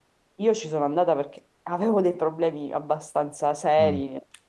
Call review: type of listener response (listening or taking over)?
taking over